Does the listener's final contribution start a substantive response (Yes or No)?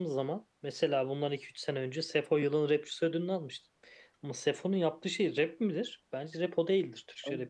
Yes